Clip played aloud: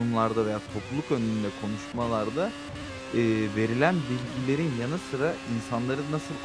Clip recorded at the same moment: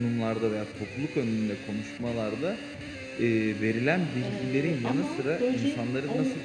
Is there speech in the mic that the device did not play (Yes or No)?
Yes